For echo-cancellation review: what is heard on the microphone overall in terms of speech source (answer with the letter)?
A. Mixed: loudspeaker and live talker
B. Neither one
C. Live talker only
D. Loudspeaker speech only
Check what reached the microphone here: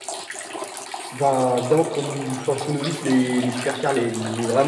C